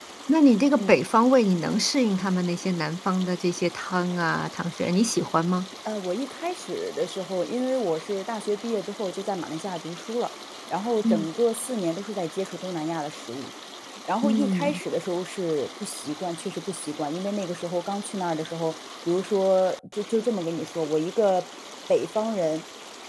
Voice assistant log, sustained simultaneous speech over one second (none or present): none